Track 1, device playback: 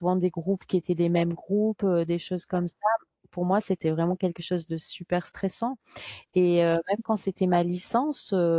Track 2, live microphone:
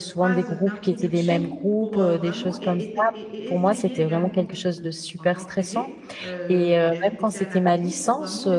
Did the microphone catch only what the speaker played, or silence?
No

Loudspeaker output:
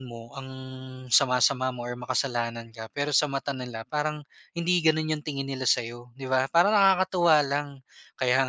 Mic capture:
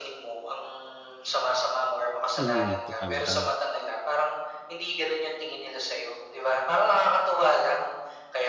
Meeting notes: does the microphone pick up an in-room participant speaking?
Yes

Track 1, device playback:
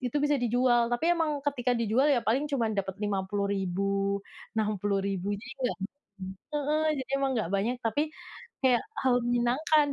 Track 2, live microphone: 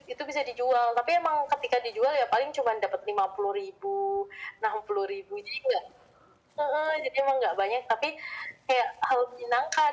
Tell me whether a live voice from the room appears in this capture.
No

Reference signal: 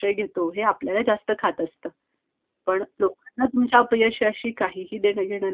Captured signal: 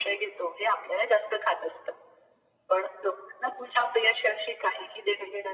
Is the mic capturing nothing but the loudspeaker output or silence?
Yes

